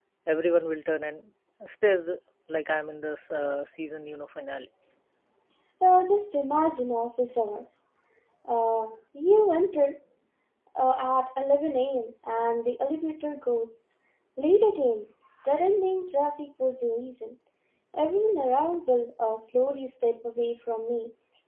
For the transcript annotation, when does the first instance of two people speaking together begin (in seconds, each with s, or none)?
none